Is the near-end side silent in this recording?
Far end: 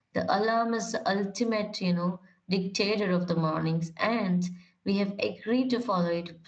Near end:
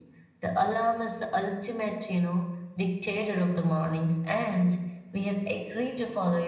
Yes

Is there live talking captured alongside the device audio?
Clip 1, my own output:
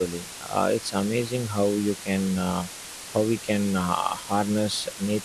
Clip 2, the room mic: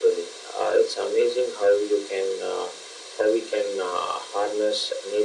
No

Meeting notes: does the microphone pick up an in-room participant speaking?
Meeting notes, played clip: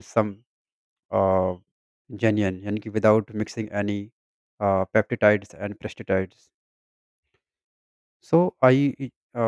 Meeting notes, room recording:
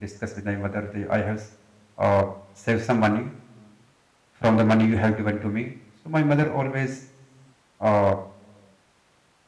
Yes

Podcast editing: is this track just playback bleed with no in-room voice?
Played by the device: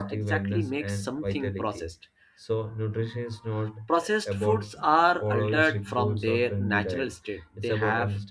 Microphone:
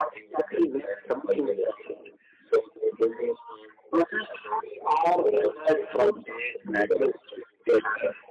Yes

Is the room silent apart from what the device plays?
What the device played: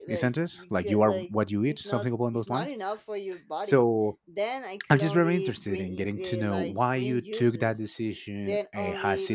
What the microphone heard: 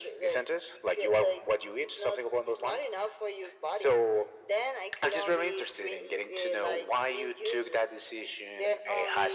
Yes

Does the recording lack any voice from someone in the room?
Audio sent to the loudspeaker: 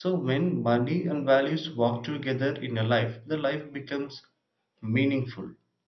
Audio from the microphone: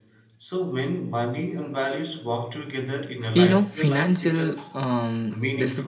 No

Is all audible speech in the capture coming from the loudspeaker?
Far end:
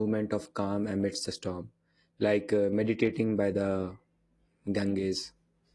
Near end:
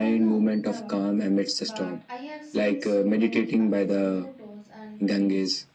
No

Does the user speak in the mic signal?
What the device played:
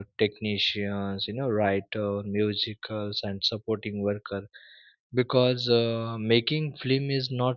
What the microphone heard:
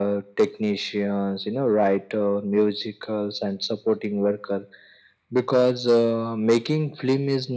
No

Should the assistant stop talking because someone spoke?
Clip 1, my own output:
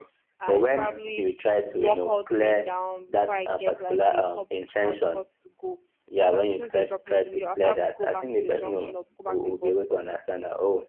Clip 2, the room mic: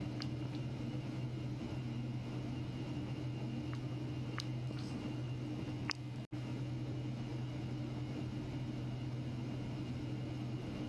No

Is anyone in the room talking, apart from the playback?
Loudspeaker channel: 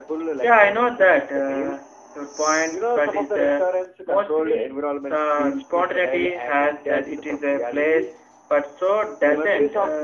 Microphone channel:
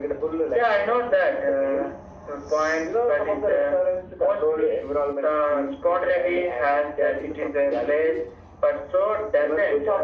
No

